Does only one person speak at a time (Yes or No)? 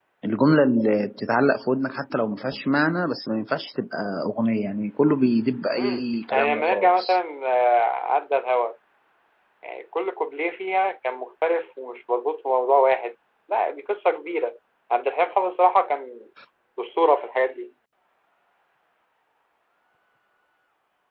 No